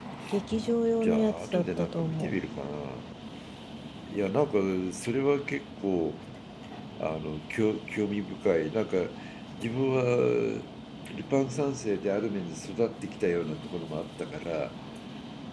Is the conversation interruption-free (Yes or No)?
No